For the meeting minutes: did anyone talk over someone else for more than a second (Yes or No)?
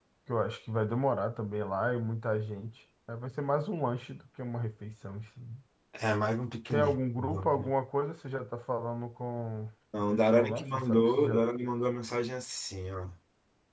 Yes